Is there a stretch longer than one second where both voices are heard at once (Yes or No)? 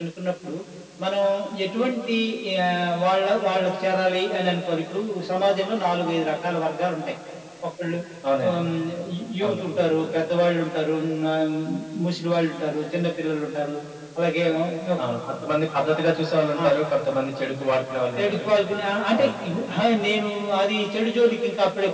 No